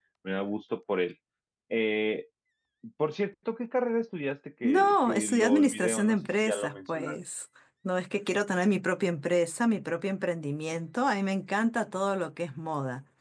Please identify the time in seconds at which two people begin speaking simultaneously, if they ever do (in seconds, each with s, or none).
4.6 s